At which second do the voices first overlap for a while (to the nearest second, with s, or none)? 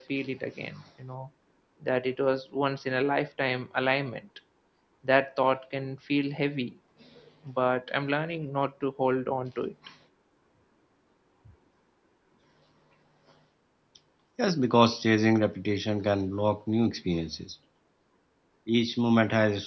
none